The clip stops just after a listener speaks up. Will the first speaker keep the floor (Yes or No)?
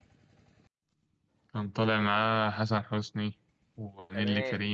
No